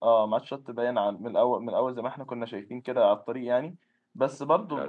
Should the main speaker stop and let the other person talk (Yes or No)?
No